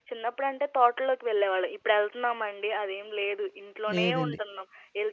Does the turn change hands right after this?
No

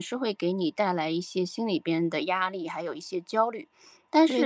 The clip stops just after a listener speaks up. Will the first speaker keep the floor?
Yes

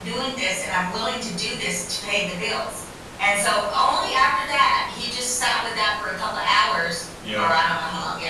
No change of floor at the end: Yes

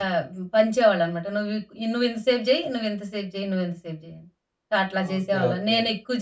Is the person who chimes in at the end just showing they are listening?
Yes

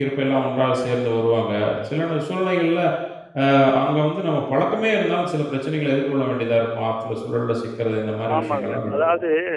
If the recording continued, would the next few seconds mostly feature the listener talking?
Yes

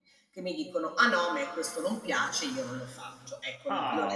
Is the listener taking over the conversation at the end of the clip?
Yes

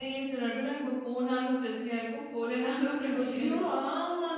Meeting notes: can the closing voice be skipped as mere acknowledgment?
No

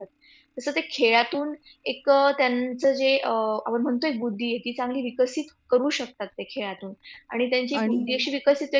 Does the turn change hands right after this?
No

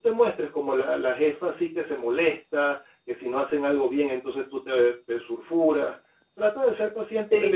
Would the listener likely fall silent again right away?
Yes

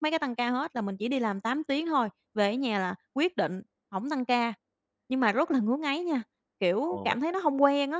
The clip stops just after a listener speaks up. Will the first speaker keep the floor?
Yes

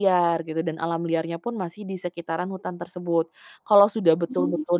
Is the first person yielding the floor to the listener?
No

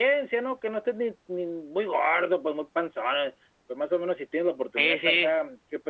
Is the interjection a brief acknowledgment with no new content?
Yes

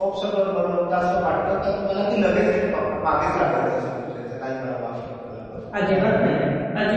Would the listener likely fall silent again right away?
No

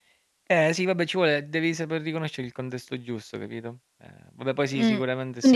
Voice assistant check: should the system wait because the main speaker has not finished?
No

